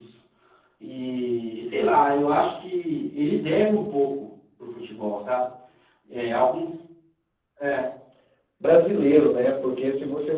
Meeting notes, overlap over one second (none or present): none